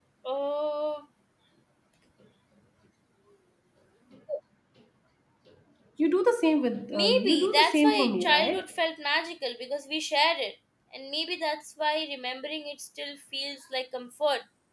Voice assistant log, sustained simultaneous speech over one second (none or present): present